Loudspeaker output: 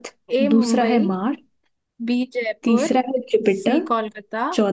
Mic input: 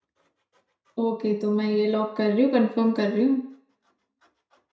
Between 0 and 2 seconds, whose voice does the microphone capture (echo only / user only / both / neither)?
user only